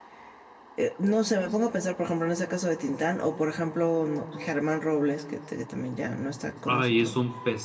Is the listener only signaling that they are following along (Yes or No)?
No